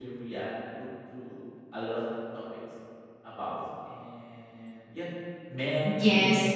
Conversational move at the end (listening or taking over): taking over